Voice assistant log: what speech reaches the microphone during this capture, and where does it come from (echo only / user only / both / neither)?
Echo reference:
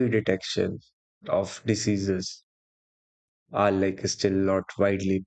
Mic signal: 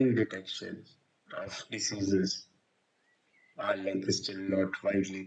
echo only